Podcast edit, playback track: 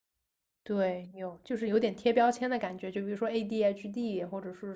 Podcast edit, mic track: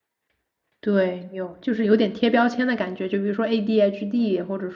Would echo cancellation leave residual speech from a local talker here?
No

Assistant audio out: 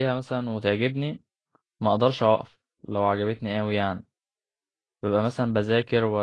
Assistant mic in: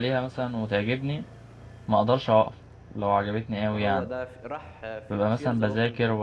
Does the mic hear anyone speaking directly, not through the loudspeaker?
Yes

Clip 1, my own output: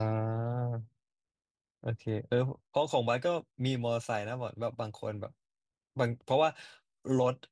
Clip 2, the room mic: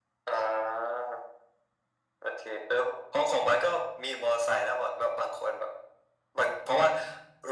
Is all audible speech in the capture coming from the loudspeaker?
Yes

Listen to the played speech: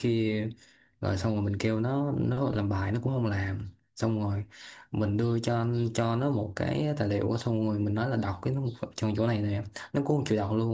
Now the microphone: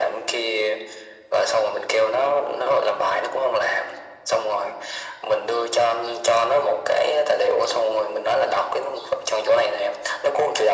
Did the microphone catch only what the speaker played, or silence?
Yes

